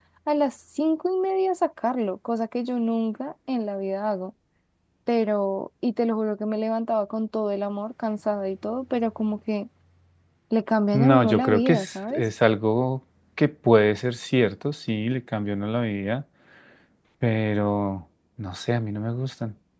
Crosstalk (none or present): present